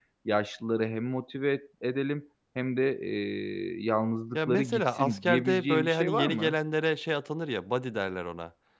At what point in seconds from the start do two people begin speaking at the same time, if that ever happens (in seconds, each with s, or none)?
4.3 s